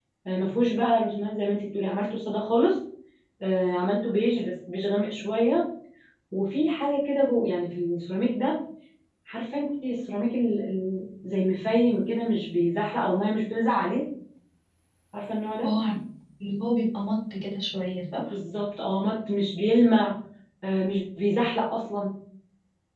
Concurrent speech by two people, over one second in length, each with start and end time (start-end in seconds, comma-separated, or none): none